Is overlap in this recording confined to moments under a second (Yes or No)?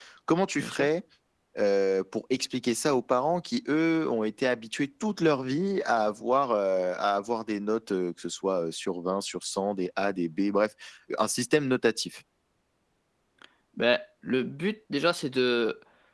Yes